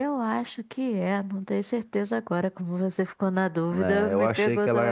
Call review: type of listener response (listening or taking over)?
taking over